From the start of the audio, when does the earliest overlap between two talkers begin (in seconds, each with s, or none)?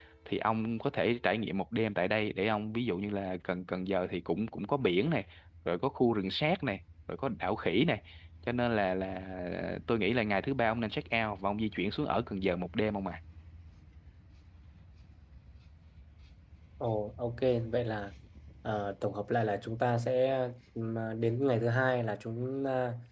none